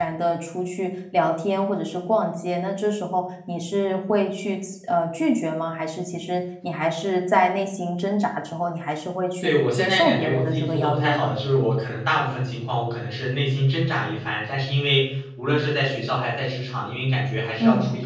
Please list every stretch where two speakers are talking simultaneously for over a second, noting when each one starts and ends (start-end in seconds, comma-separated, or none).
9.4-11.4